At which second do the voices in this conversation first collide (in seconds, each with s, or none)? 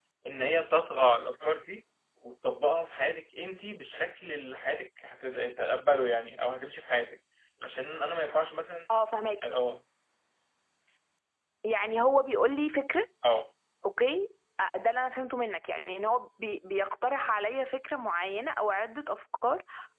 none